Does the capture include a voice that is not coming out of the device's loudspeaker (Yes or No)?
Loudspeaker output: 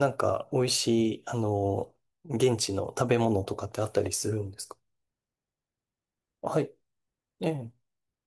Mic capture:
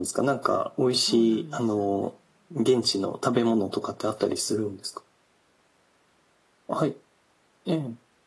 Yes